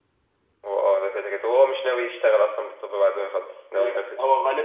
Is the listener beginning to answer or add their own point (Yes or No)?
Yes